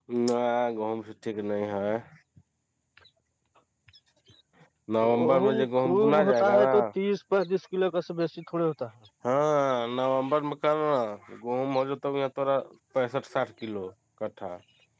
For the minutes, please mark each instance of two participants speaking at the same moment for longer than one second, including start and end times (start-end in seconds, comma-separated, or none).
5.2-6.8